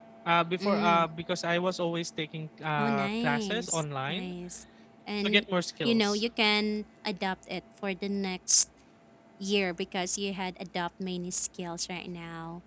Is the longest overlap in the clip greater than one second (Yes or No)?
Yes